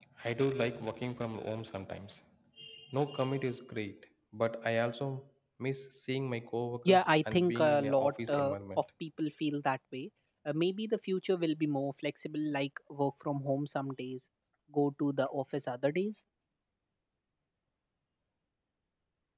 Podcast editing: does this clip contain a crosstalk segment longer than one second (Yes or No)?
Yes